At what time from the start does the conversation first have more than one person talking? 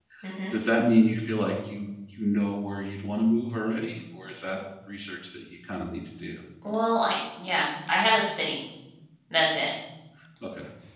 none

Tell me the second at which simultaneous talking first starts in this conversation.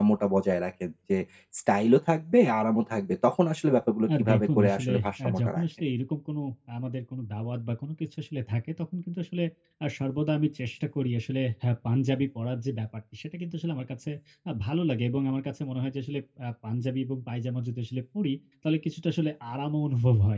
4.3 s

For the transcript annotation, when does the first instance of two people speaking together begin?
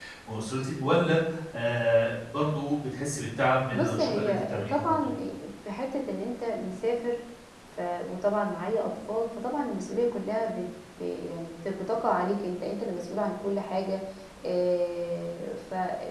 3.7 s

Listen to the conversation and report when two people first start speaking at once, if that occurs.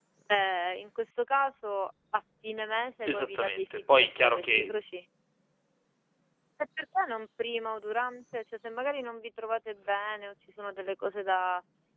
3.0 s

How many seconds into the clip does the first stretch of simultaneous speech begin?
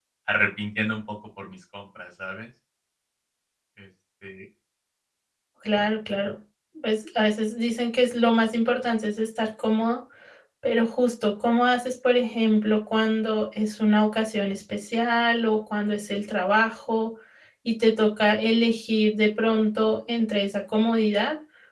none

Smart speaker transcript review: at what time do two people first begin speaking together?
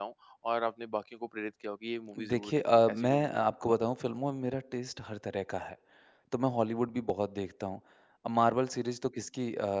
2.1 s

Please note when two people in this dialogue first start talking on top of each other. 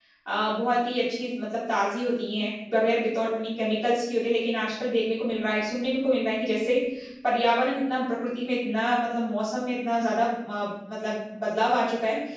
none

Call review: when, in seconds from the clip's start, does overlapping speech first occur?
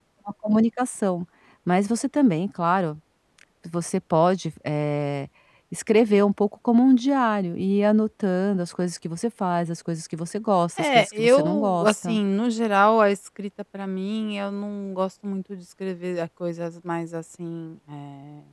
10.8 s

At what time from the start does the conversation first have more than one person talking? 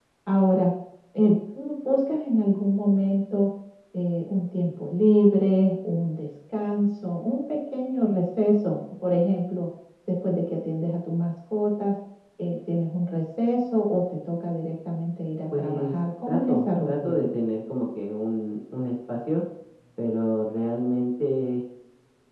15.5 s

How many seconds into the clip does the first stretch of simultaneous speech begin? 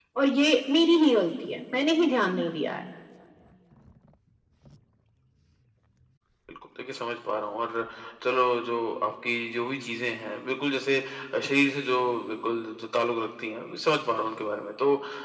none

